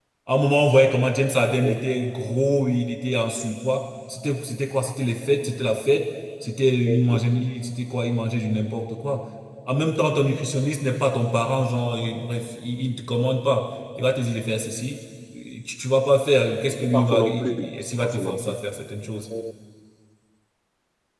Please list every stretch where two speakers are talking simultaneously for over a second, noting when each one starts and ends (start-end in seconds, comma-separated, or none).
16.8-18.5